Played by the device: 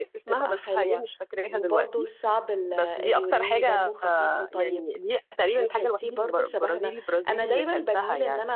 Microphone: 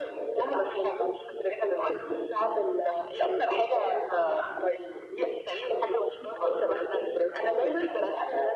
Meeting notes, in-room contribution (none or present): none